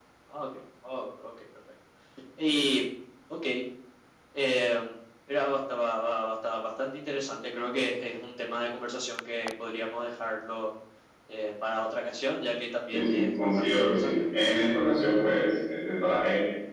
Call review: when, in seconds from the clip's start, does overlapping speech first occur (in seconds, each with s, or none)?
12.9 s